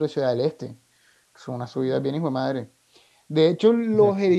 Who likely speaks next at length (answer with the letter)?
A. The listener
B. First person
B